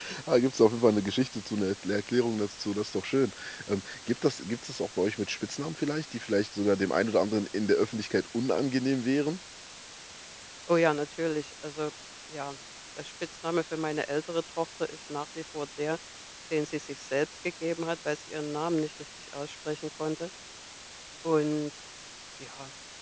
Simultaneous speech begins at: none

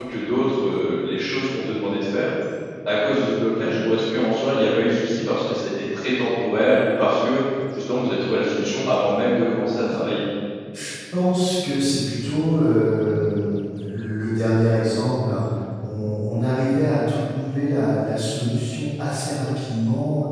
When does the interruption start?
none

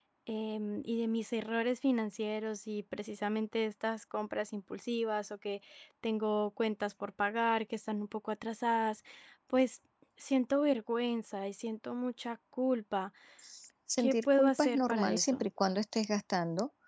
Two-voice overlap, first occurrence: 14 s

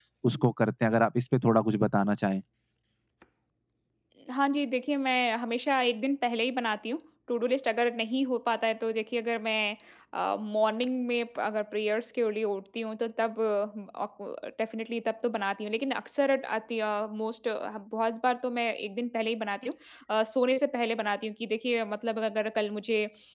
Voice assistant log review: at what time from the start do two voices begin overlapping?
none

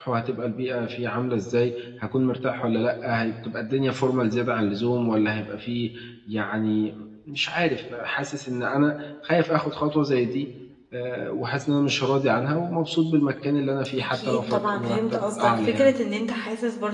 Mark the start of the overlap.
14 s

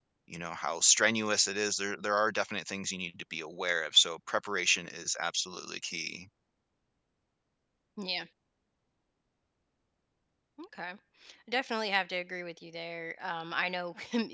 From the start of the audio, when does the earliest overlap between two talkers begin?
none

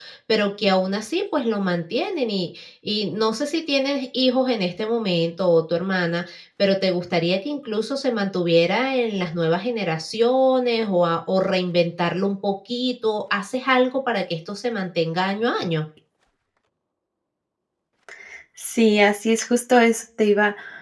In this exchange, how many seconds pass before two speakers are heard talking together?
none

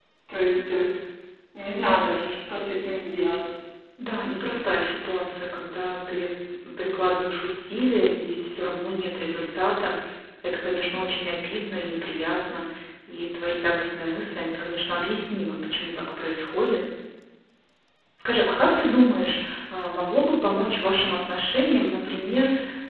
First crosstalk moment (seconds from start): none

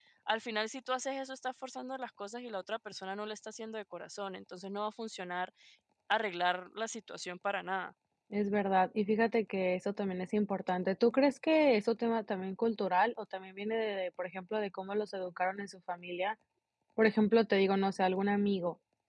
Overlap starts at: none

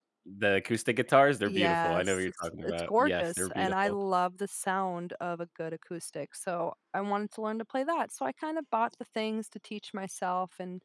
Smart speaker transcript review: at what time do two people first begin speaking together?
1 s

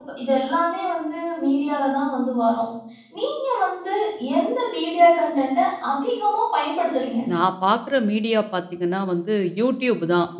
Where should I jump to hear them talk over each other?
none

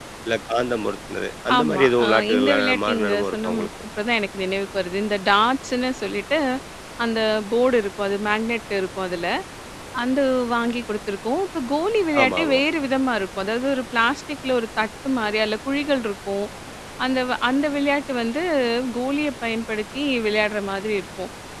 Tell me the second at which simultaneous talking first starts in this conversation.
2 s

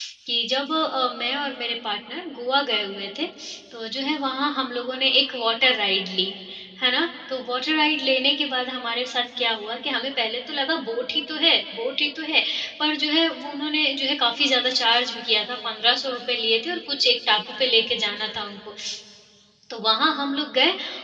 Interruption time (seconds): none

